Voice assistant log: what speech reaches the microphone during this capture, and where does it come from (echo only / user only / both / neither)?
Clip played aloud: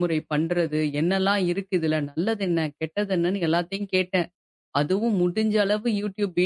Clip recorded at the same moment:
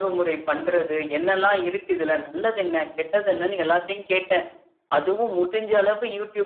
echo only